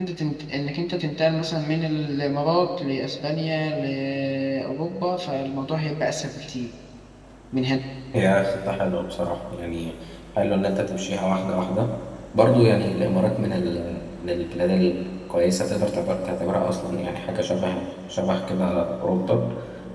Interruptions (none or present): none